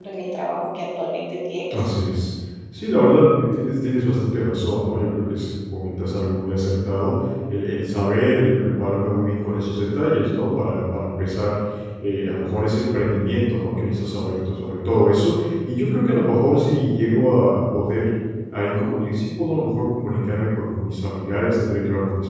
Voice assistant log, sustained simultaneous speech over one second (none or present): none